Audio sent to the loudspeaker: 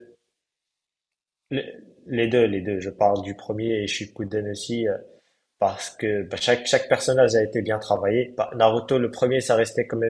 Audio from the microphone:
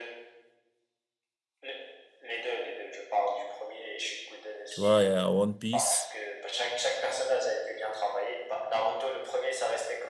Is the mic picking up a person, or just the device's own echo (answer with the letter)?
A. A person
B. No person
A